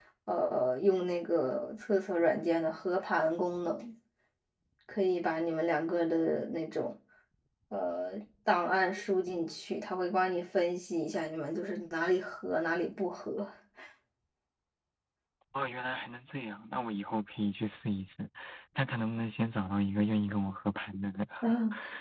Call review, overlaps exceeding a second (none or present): none